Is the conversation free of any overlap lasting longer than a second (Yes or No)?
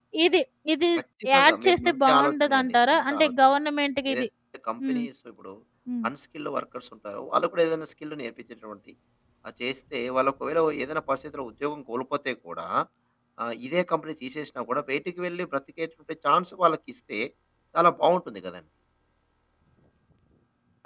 No